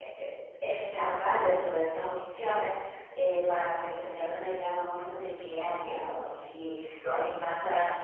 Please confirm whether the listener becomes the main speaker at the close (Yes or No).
No